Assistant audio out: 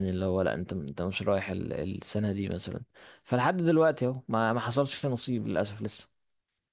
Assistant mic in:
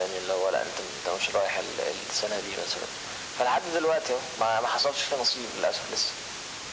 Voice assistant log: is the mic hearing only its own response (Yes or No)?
Yes